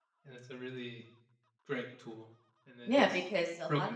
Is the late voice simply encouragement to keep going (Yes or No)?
No